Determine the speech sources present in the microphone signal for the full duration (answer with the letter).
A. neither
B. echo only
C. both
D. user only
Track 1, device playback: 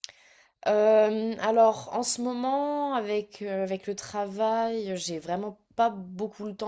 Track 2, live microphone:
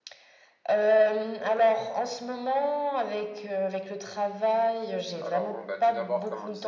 C